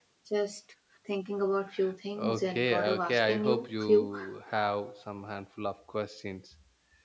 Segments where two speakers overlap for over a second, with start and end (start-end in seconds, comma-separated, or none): 2.2-4.1